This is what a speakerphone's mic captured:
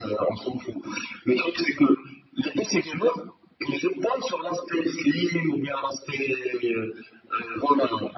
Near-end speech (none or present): none